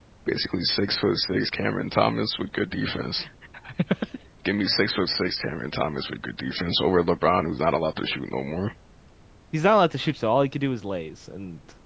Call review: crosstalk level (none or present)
none